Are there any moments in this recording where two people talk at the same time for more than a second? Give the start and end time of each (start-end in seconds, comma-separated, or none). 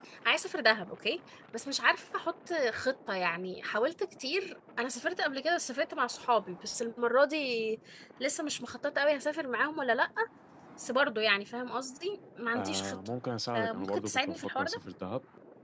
13.5-14.8